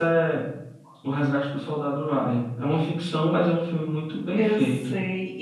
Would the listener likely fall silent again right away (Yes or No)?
No